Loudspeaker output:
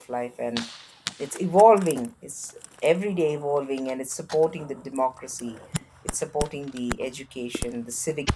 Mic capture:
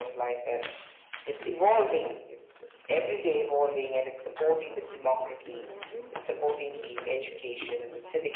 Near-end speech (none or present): present